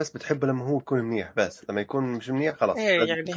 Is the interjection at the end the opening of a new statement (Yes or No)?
Yes